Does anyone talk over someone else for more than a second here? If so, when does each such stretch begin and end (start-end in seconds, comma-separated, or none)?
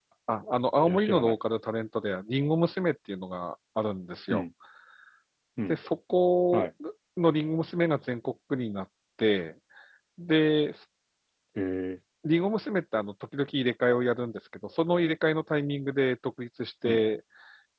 none